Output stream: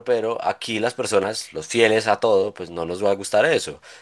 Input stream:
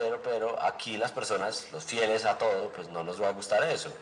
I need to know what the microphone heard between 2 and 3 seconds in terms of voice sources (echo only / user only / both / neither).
echo only